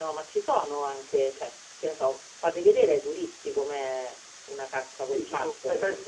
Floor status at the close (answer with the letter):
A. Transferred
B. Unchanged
A